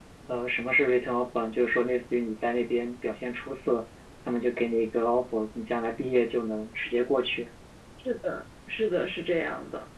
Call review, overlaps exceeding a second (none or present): none